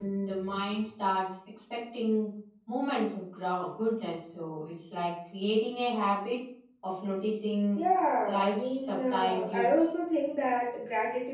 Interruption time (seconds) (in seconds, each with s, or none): 8.3 s